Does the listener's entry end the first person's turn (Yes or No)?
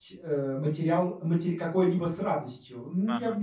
No